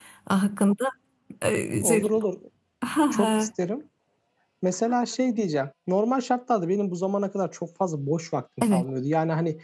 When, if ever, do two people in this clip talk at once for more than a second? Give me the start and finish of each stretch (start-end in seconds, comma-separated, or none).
none